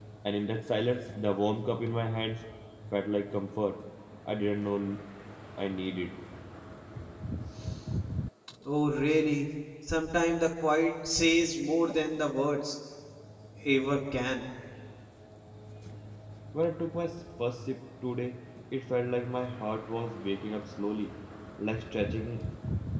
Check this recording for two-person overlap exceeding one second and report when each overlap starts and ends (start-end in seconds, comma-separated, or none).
none